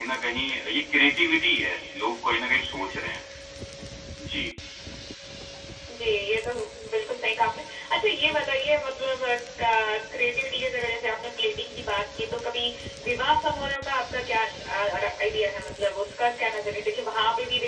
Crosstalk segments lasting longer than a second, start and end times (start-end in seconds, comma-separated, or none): none